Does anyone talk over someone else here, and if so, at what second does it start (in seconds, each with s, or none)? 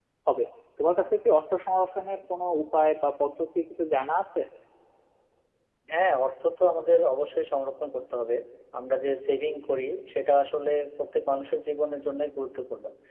none